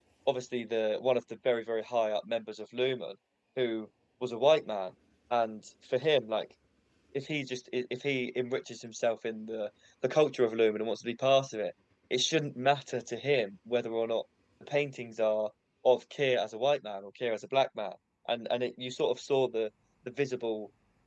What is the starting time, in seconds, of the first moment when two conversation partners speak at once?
none

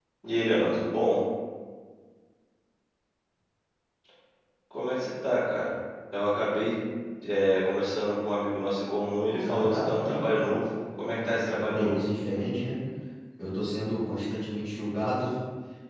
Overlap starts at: 9.3 s

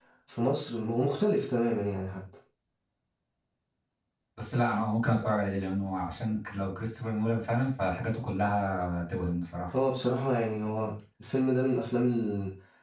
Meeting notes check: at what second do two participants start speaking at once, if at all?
none

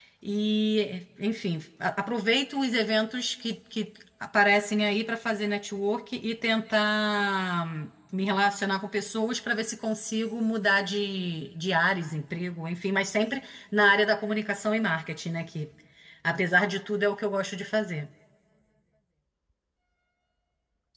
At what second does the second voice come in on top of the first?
none

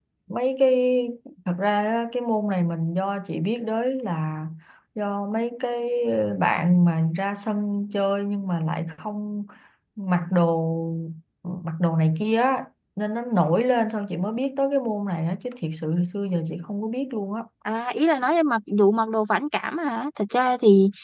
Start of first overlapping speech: none

